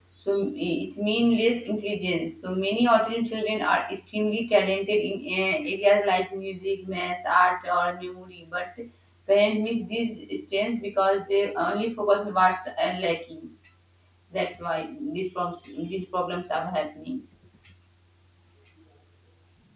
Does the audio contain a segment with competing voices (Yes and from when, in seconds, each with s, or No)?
No